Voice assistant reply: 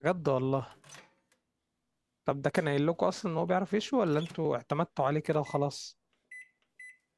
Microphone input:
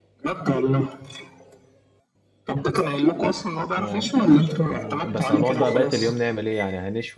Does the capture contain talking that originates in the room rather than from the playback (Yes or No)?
Yes